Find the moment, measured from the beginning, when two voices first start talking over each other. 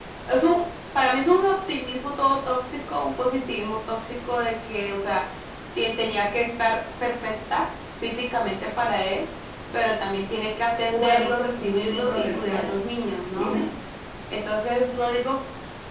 10.9 s

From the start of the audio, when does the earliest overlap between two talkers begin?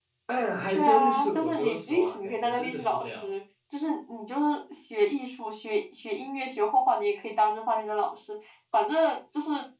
0.7 s

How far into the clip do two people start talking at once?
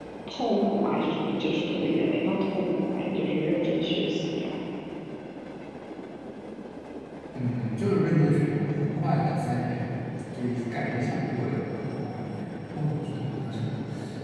none

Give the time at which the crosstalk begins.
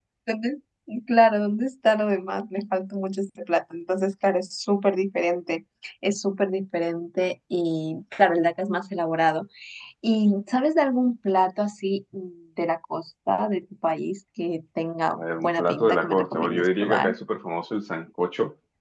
15.1 s

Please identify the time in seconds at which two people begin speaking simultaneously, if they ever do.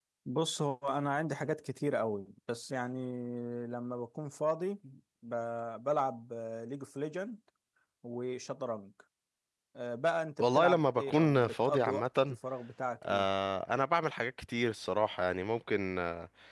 10.4 s

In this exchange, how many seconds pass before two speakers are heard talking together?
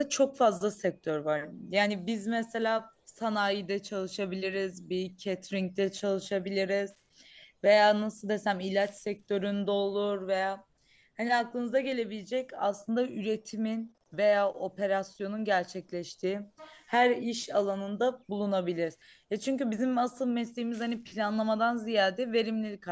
none

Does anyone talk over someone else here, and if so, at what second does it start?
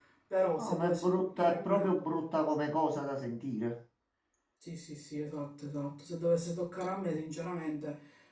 0.6 s

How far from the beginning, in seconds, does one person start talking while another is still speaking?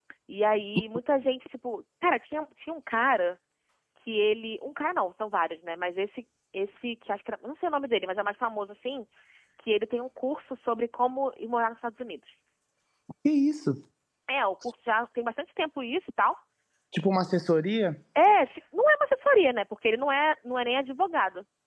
none

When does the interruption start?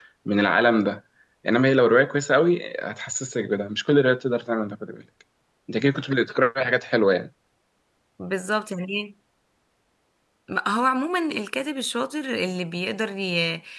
none

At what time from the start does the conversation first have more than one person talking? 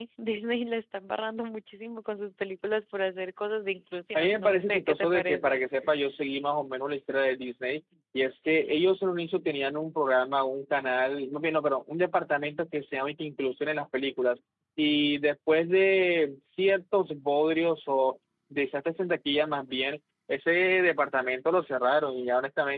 4.2 s

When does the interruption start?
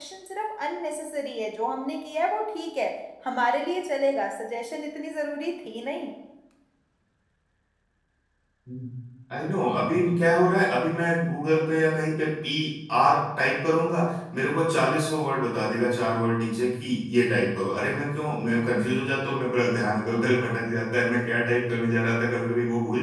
none

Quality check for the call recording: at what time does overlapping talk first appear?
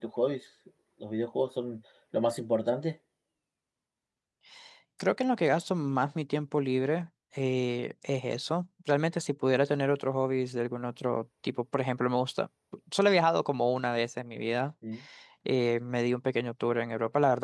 none

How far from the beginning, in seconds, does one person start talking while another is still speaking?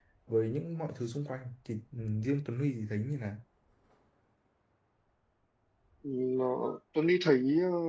none

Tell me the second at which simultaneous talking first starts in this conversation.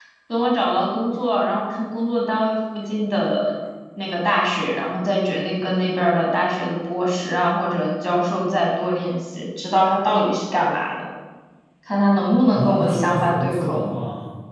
12.5 s

